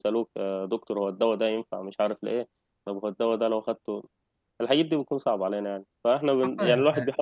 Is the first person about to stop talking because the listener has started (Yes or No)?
No